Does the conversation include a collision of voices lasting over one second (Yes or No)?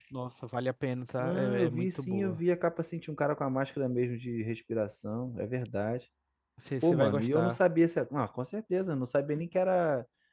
Yes